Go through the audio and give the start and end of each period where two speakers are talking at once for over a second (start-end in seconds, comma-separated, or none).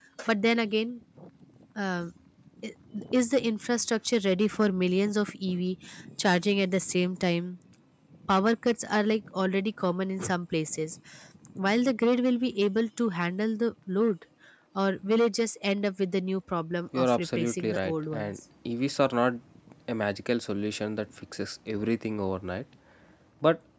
16.9-18.4